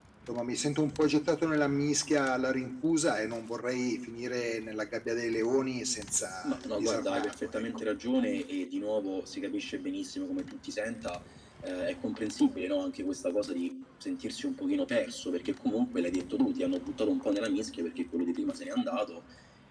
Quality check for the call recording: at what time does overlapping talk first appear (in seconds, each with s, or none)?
6.4 s